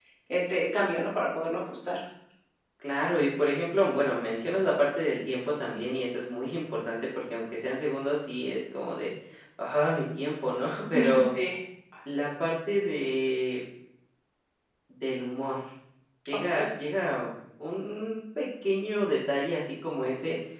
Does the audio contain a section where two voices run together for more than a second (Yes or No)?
No